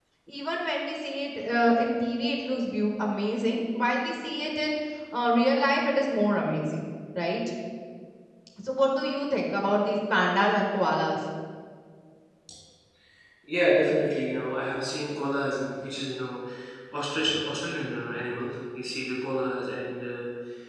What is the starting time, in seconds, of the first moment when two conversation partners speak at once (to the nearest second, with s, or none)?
none